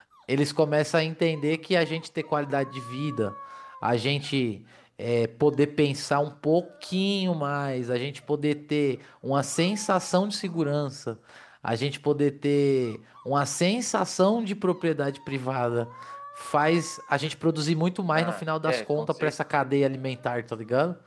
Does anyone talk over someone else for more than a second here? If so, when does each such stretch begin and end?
18.1-19.8

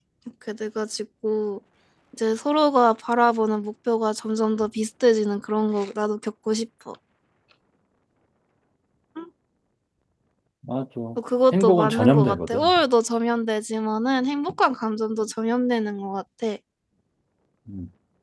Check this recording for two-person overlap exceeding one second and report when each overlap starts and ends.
11.5-12.7

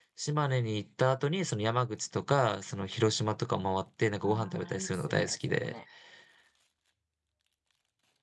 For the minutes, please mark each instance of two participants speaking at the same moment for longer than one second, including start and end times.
4.2-5.7

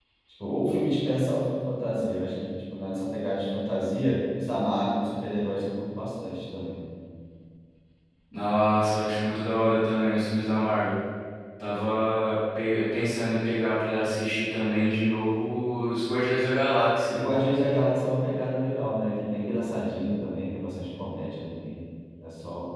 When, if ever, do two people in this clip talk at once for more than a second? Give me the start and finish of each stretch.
none

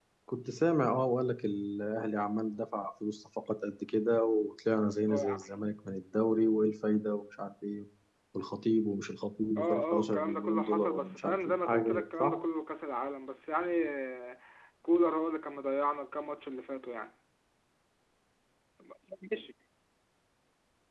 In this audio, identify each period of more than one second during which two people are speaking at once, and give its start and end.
9.6-12.4

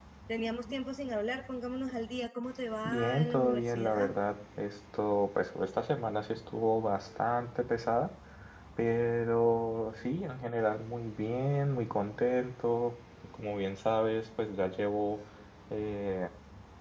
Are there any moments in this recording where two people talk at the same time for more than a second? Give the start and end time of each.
2.9-4.1

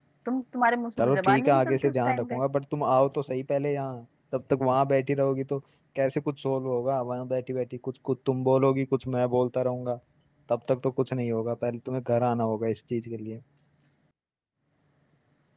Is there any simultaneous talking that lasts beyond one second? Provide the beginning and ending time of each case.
1.0-2.4

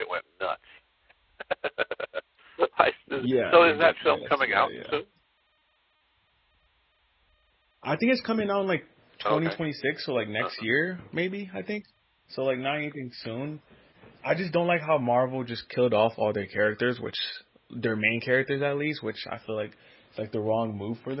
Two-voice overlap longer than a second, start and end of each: 3.2-5.0

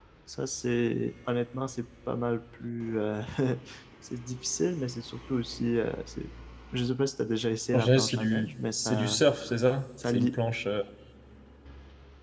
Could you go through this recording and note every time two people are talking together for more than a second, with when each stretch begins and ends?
7.7-9.2

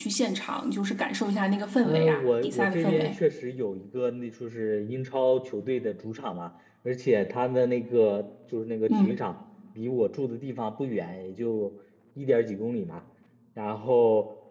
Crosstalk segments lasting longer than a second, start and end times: 1.8-3.2

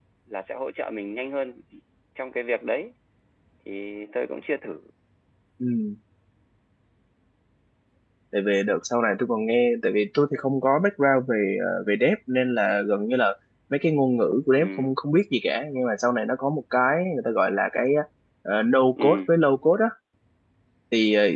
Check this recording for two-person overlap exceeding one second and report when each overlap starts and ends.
none

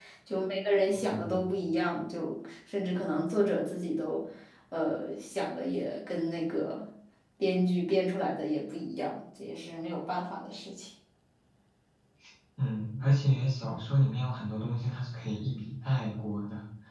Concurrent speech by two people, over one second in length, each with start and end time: none

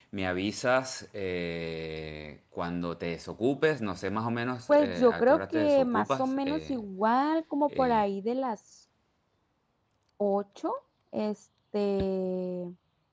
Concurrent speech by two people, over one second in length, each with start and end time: 4.7-6.8

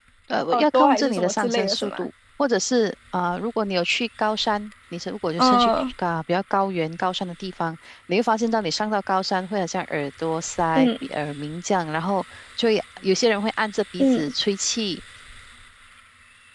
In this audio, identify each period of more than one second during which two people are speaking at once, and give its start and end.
0.5-2.0

